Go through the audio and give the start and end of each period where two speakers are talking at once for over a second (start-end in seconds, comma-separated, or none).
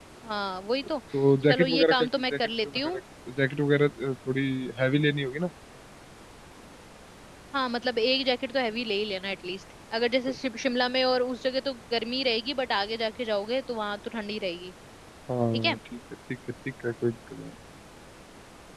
1.5-3.0